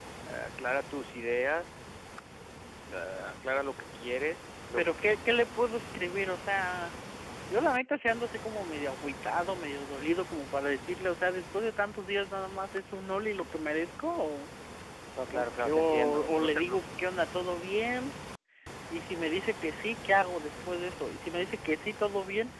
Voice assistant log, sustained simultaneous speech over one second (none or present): present